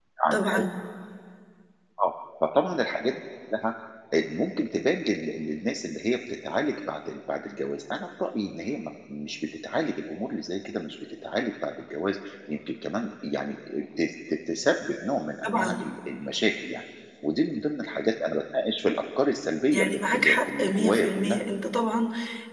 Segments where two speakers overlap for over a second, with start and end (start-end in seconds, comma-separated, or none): 19.7-21.4